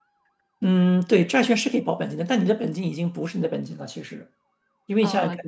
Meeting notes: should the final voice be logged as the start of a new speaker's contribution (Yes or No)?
No